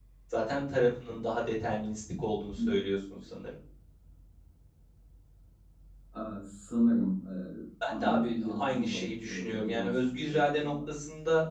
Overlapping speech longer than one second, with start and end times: 7.9-10.7

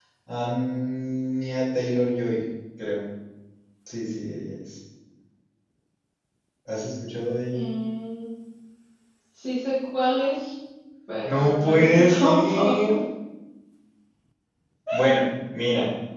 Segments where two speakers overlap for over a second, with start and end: 11.2-12.8

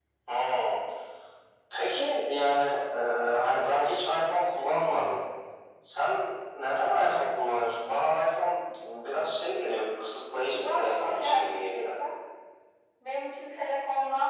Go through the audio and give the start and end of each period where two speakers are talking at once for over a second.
10.6-11.9

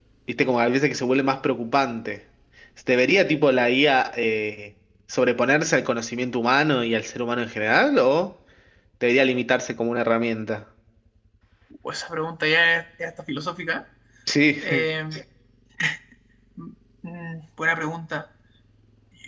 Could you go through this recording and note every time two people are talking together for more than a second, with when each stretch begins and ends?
none

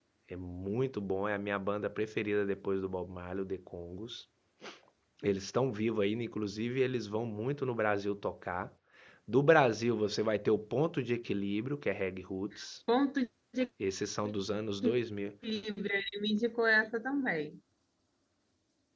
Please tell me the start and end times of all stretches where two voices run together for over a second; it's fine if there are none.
none

